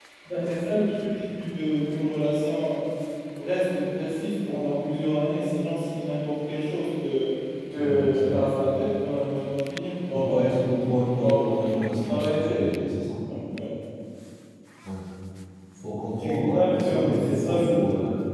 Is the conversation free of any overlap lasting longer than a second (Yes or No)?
No